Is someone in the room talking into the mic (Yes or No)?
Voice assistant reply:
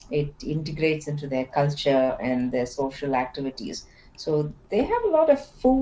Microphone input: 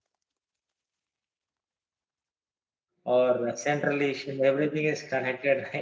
Yes